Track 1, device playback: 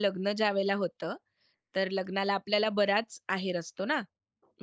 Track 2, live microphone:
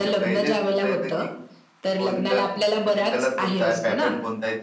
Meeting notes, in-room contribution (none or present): present